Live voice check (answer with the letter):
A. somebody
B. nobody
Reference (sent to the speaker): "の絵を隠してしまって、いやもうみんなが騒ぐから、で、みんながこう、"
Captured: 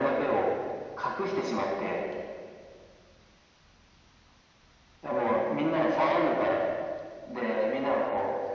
B